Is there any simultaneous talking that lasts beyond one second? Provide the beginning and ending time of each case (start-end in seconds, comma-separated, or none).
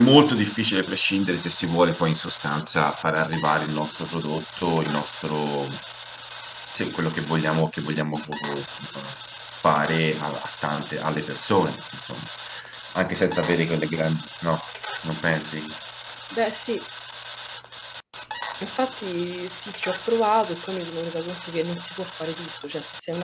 none